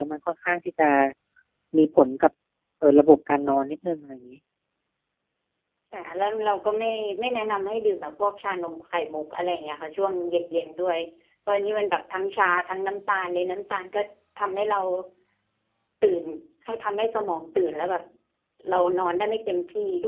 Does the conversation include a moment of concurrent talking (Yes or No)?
No